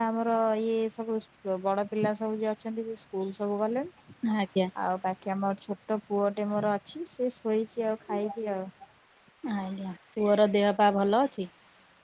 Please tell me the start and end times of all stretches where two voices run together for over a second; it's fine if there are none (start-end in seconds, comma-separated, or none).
none